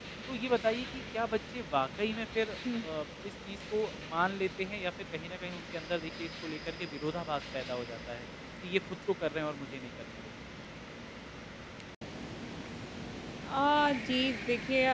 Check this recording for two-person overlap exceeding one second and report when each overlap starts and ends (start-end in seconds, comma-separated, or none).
none